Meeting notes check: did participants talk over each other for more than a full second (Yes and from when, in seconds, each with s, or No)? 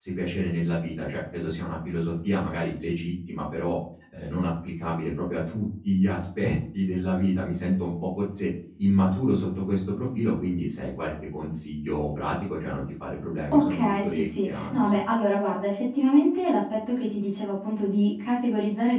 Yes, from 13.5 s